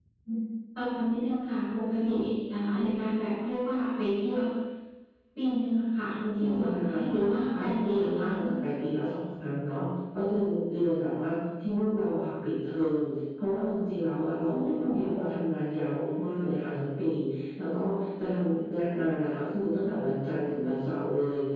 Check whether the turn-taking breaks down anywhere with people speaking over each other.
Yes, from 6.4 s

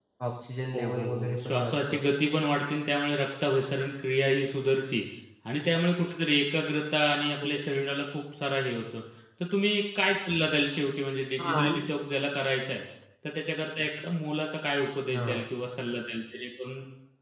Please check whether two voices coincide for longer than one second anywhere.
Yes, from 0.7 s

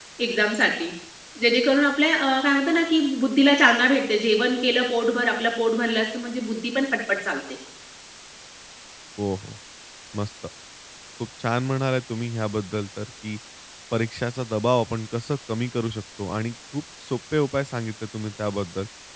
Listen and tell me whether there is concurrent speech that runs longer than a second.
No

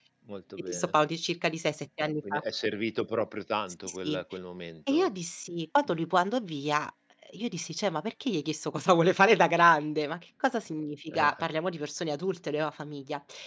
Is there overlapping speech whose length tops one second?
No

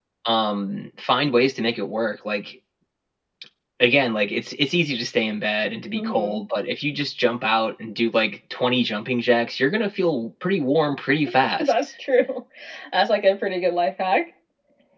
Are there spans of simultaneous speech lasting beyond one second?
No

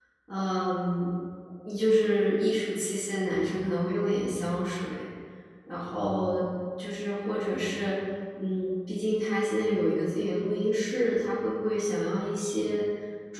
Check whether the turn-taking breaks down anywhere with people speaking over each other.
No

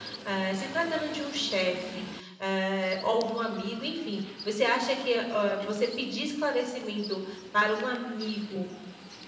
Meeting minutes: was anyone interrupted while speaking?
No

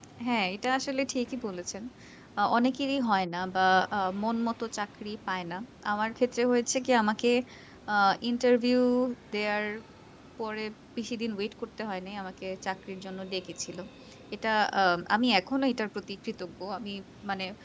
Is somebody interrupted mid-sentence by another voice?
No

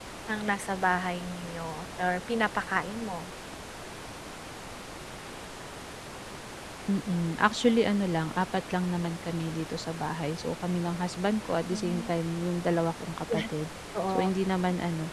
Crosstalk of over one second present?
No

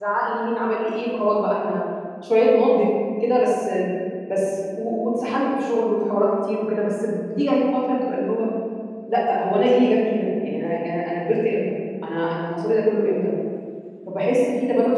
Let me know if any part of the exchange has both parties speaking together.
No

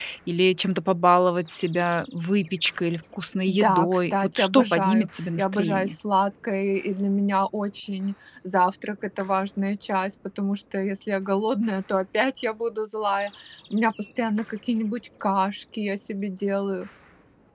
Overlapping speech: Yes, from 3.5 s

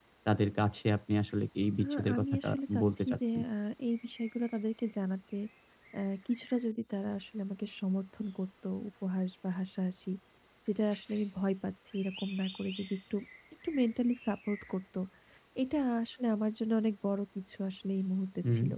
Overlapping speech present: Yes, from 1.8 s

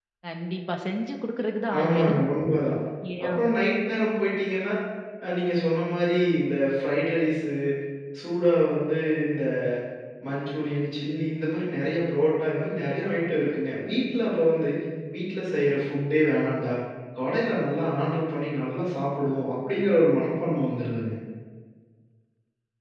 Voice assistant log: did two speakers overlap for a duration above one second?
No

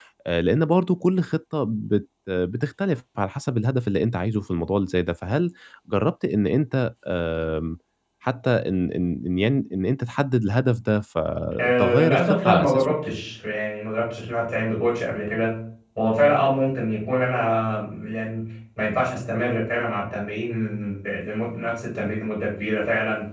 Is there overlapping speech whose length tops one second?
Yes, from 11.6 s

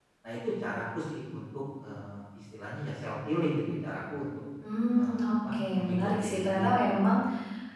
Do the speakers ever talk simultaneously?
Yes, from 4.9 s

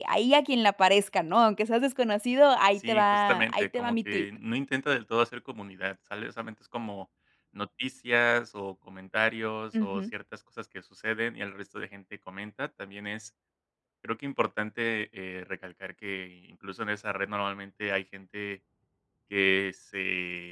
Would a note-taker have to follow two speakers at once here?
Yes, from 2.8 s

